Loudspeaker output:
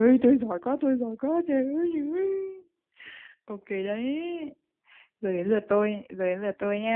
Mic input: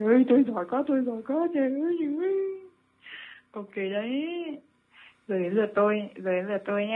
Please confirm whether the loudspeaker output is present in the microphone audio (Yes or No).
Yes